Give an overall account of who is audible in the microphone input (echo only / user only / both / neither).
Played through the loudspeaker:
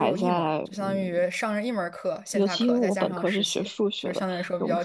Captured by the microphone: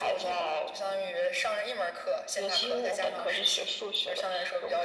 echo only